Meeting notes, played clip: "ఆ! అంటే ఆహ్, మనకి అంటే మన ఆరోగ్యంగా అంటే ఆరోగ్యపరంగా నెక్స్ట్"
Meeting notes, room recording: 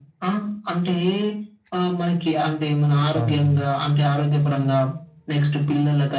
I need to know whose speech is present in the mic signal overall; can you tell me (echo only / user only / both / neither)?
both